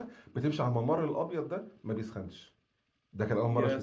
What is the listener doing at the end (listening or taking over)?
listening